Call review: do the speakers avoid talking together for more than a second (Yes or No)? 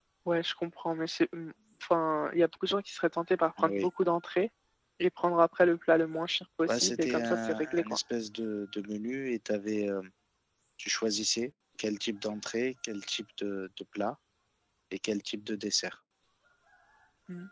No